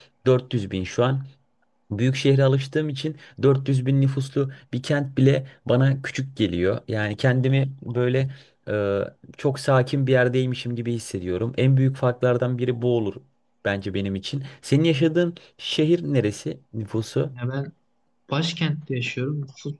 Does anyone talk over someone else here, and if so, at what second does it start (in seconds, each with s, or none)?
none